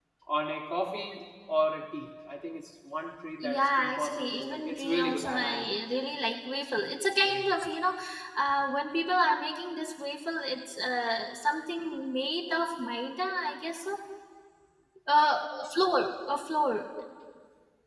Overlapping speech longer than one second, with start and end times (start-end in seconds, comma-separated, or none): 3.4-5.6